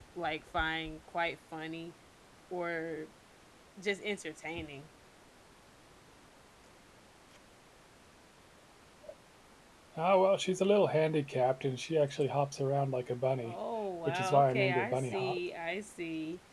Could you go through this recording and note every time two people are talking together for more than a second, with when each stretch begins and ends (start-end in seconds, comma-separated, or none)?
14.1-15.4